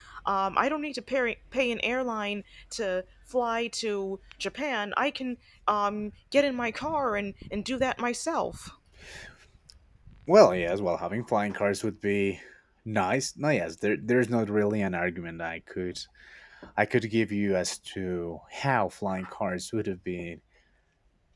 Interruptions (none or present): none